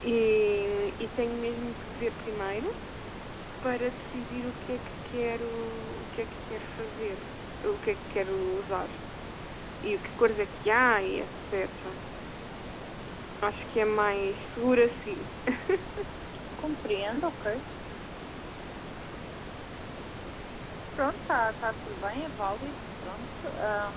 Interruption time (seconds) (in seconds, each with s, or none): none